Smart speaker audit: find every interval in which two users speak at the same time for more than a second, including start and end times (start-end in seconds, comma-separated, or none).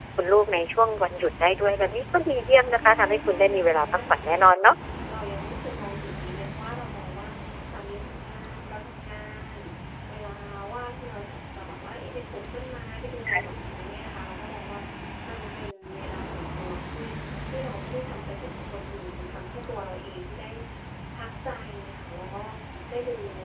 2.8-4.6